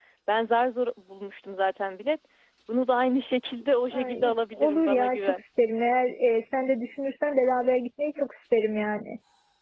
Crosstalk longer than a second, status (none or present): present